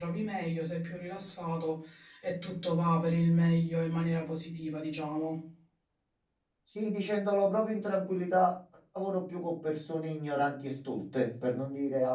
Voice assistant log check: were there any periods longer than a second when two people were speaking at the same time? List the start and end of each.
none

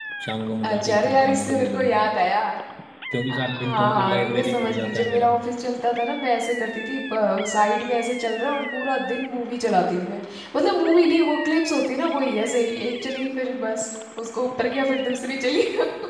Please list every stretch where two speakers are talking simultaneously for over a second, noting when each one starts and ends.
0.6-1.9, 3.3-5.3

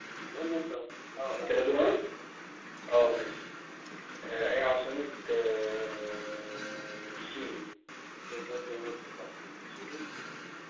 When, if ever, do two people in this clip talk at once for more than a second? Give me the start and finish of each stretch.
none

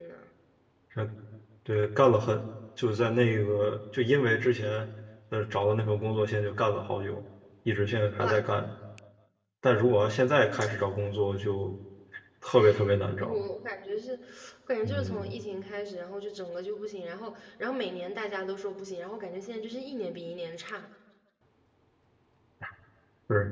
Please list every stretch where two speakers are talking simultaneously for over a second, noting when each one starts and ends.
none

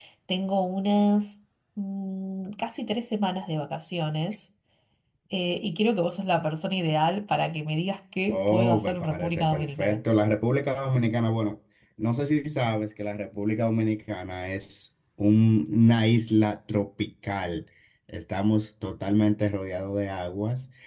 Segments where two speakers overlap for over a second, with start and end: 8.3-10.0

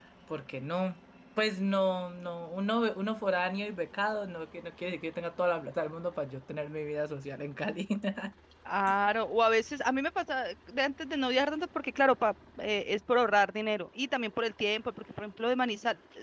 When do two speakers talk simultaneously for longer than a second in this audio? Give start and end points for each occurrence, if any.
none

